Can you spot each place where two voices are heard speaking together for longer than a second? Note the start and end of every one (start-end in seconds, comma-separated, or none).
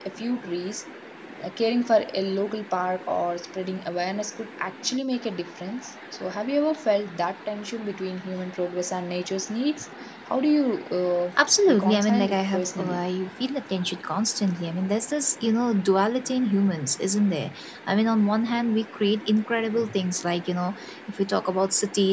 11.7-13.1